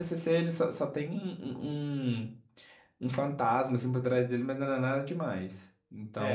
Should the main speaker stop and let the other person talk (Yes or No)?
Yes